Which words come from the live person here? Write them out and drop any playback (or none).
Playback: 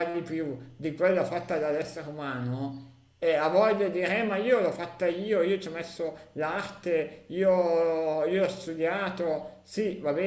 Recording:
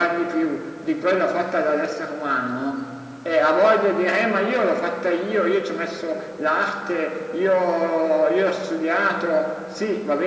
none